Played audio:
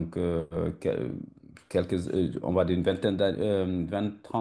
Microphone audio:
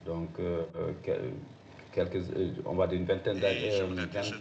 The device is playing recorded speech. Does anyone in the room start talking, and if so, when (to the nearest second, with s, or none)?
3 s